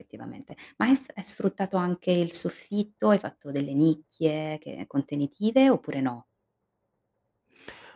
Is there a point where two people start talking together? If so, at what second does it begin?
none

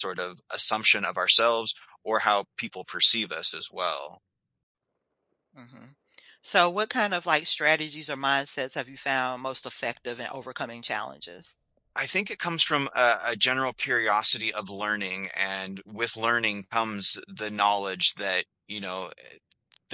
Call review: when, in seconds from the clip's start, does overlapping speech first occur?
none

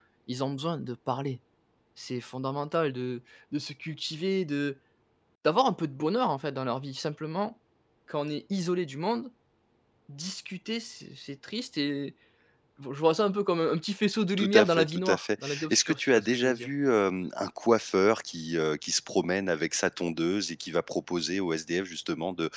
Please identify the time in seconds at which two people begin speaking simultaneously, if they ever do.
14.4 s

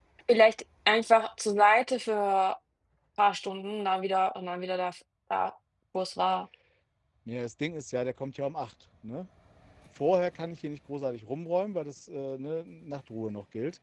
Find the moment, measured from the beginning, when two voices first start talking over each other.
none

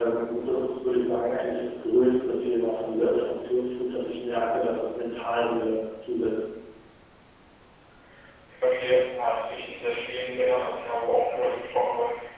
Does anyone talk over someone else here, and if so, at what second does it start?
none

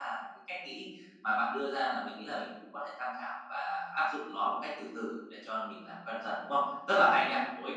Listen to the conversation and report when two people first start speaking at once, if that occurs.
none

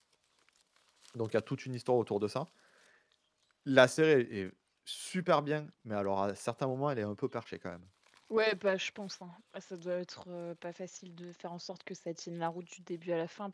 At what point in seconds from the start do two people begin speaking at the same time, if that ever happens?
none

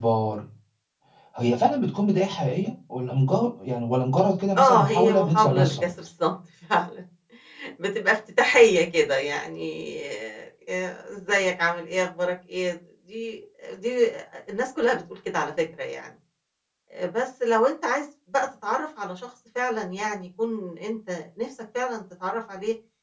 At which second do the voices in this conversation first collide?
4.5 s

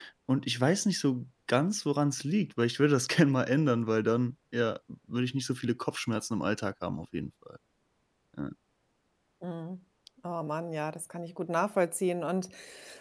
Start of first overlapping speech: none

